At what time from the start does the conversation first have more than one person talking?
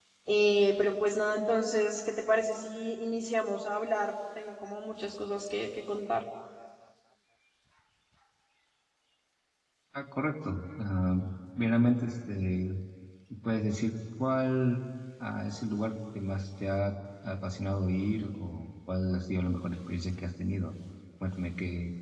none

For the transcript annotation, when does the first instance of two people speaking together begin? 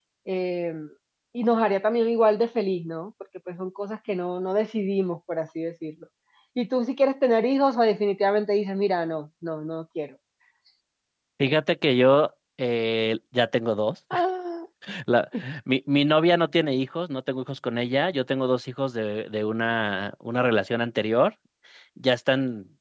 none

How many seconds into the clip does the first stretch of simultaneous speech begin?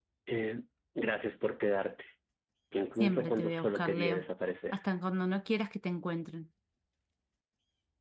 3 s

